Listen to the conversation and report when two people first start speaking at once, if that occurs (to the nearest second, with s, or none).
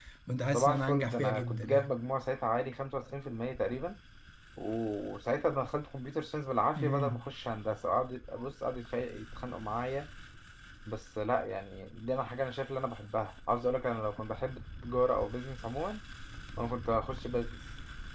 1 s